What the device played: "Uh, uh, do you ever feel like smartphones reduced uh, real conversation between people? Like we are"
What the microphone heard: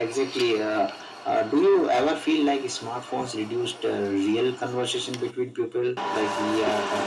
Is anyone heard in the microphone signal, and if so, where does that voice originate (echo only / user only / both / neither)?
echo only